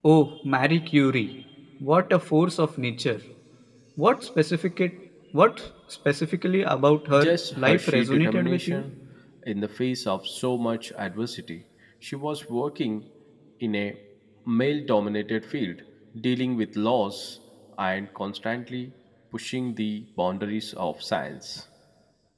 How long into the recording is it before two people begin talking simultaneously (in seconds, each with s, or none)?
7.1 s